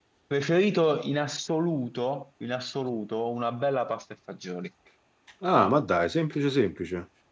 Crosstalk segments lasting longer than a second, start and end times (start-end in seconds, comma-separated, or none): none